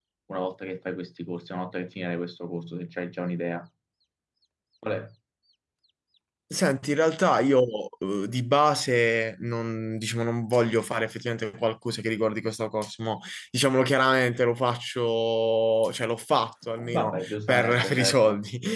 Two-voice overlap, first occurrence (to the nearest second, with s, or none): 17 s